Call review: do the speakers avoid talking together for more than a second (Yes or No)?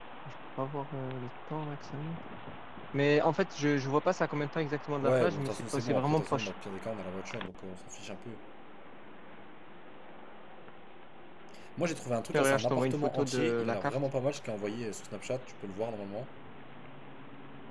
No